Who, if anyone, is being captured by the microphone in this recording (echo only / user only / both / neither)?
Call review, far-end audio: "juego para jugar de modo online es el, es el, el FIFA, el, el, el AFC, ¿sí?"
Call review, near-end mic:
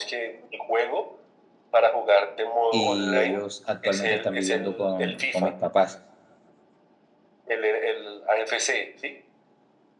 both